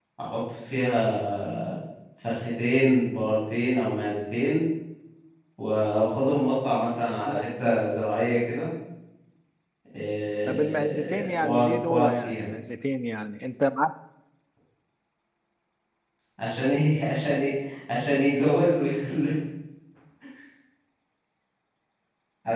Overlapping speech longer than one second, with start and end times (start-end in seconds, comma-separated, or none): 10.5-12.5